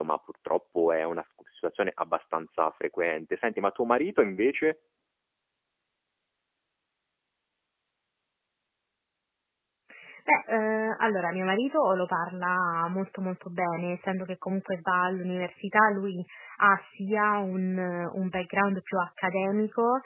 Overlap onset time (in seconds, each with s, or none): none